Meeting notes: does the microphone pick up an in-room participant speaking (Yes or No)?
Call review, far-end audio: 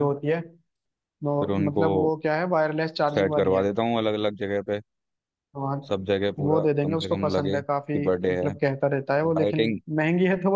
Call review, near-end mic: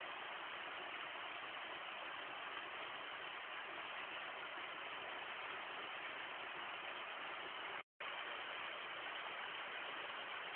No